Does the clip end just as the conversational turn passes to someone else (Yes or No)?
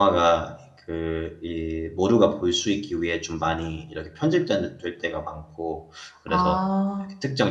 No